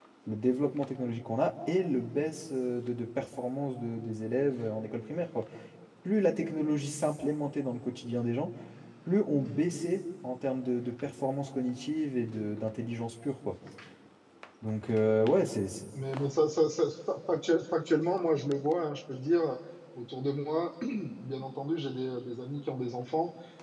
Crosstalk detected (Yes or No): No